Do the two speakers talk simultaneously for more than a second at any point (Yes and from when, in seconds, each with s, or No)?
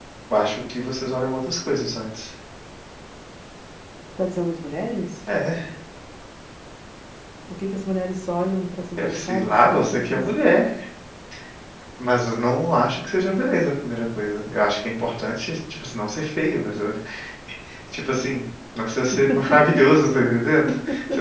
Yes, from 9.0 s